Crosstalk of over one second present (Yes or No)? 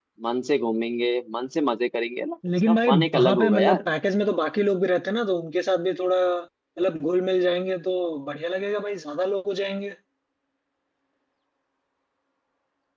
Yes